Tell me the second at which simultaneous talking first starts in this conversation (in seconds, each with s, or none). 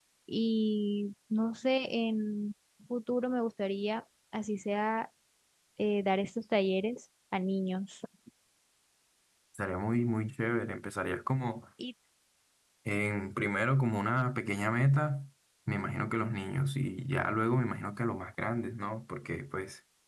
none